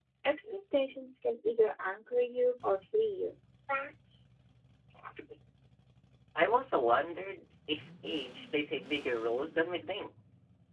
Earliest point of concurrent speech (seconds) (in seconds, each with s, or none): none